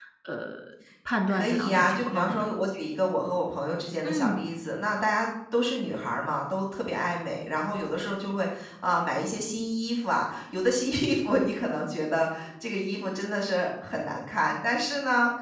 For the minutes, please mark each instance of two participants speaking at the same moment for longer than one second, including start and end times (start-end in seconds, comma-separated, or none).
1.3-2.5